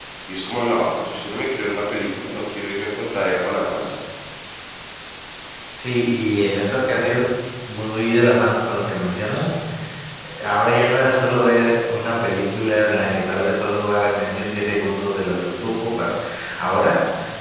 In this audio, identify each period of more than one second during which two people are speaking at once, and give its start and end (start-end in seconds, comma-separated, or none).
none